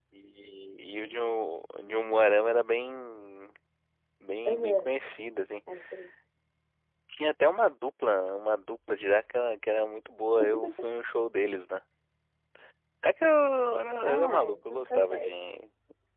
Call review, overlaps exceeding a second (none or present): present